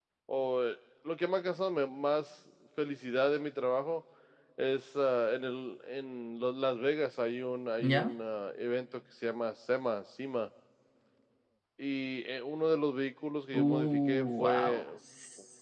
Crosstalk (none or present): present